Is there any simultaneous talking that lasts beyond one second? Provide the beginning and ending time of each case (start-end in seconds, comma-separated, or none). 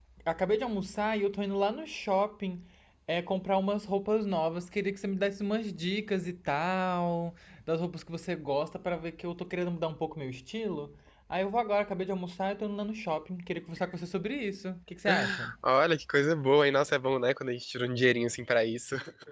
none